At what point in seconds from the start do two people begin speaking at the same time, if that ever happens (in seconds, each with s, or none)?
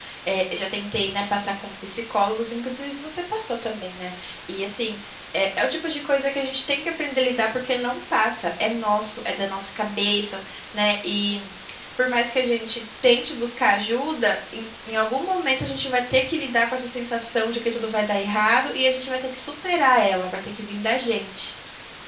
none